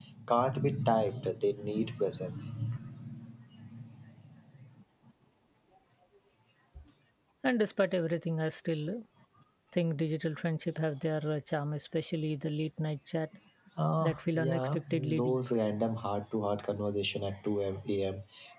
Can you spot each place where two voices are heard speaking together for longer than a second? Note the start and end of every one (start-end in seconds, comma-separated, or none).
14.0-15.4